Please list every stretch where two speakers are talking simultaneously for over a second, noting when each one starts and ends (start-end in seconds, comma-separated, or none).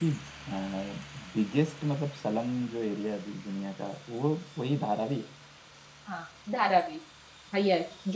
none